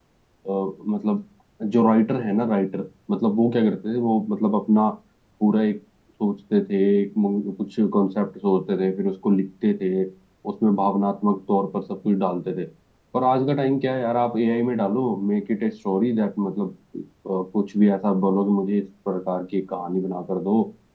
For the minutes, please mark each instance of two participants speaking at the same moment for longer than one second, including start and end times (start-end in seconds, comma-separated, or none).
none